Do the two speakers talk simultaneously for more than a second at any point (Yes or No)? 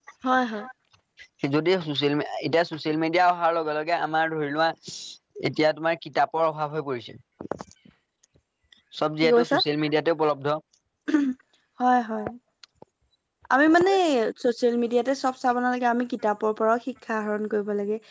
No